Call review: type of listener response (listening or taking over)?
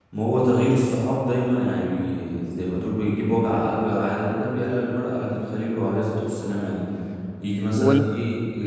listening